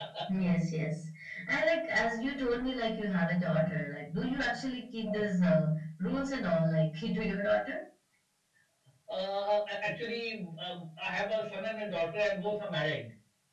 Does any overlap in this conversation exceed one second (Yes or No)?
No